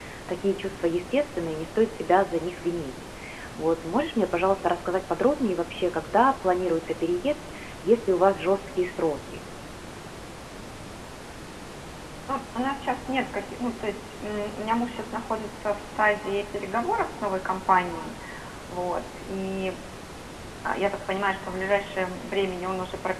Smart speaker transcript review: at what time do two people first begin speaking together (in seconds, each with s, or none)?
none